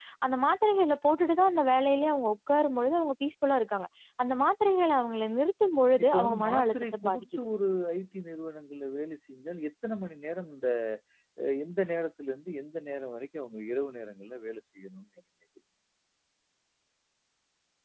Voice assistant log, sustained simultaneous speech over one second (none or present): present